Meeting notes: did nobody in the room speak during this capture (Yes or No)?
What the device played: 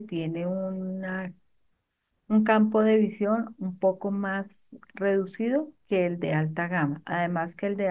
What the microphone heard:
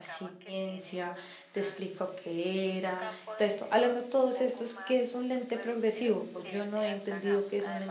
No